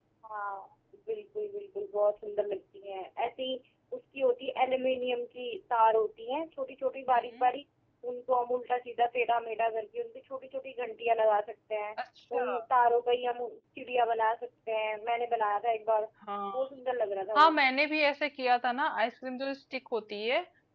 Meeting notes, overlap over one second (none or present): none